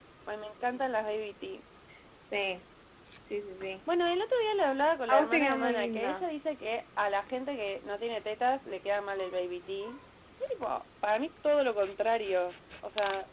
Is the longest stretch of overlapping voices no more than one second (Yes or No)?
No